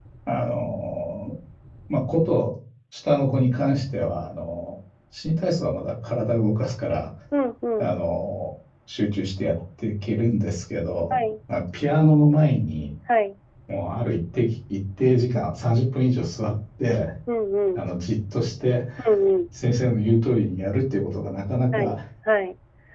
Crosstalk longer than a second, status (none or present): none